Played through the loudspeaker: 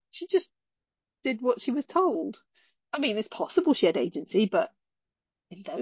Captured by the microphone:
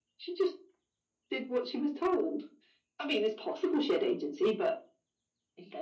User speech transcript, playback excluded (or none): none